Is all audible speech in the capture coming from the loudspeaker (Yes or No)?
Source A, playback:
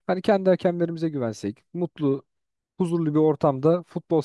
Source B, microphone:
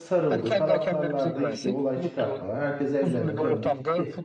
No